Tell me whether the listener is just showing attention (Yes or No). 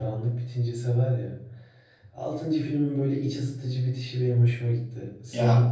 No